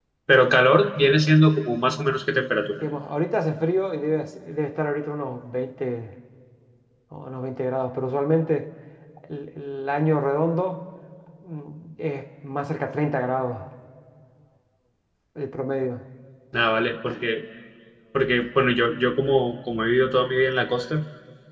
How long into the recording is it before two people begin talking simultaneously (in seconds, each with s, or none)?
none